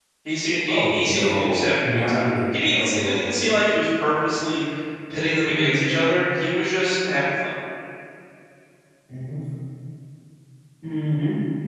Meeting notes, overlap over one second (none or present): present